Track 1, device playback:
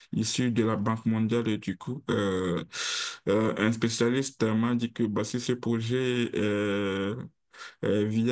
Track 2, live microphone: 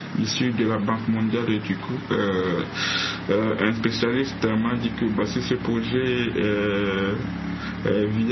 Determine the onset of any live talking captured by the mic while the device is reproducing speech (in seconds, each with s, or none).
none